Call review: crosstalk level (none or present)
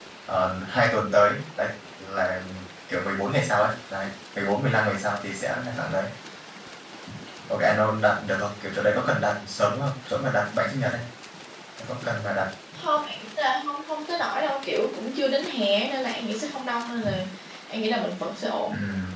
none